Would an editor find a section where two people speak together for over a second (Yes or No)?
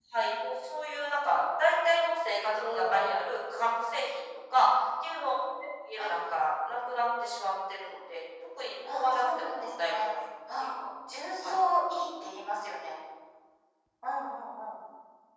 Yes